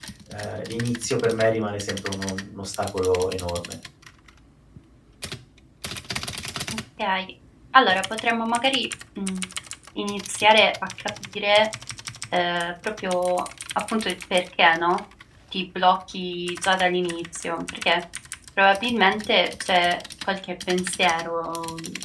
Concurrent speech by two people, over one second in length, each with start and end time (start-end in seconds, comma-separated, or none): none